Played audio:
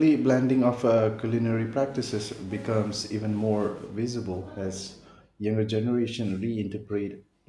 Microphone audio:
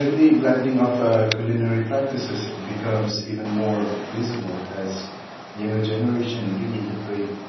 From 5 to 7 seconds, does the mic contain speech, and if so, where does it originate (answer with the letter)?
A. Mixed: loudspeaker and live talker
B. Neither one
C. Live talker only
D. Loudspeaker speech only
D